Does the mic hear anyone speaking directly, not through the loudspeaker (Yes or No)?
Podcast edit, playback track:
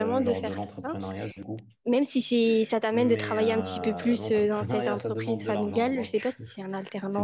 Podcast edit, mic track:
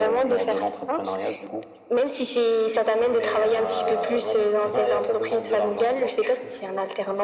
No